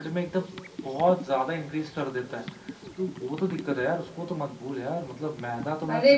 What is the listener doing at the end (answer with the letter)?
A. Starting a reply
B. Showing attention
B